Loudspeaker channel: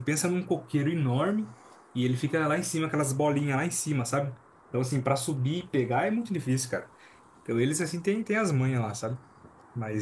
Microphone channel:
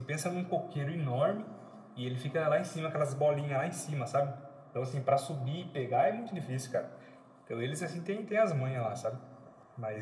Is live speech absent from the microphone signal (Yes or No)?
Yes